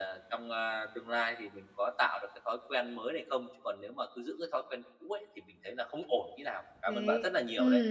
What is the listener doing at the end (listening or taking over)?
taking over